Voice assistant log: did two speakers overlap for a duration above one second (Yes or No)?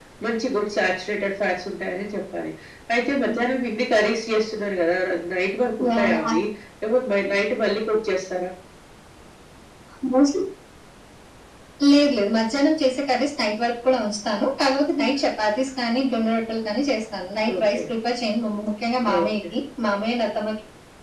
No